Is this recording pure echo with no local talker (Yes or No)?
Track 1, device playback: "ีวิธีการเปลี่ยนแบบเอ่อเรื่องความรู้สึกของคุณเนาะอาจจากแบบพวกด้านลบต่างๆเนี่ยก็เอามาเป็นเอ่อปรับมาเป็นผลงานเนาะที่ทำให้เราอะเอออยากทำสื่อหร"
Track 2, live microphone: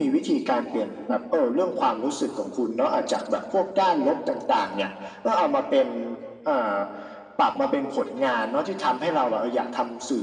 Yes